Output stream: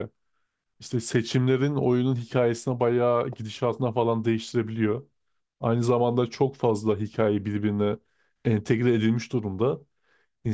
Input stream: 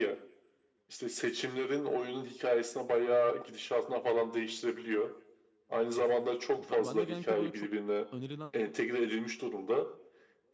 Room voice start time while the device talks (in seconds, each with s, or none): 6.6 s